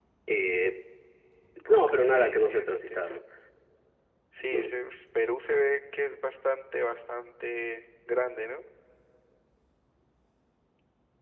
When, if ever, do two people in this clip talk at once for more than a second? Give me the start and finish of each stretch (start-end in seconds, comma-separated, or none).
1.7-3.2